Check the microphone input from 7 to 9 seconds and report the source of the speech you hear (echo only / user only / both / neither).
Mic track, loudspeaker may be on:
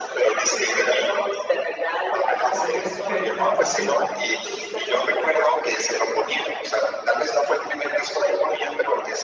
echo only